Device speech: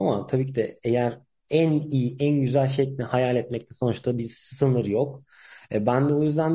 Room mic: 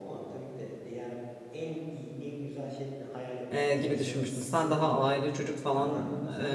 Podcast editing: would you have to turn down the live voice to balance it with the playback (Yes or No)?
Yes